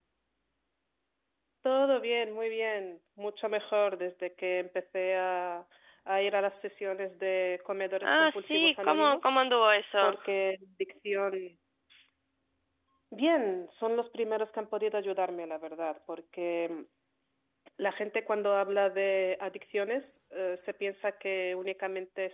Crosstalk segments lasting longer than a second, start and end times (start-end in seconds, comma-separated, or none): 8.0-9.3